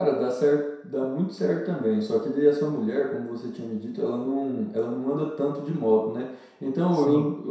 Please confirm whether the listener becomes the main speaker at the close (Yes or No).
No